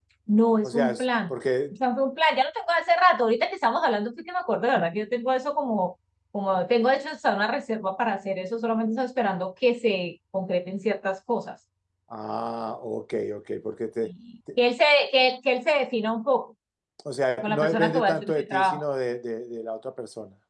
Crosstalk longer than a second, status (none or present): present